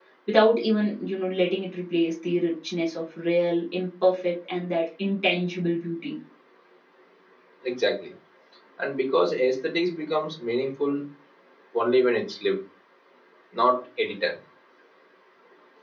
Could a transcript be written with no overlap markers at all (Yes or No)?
Yes